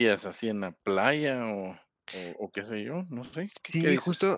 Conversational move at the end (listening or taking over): taking over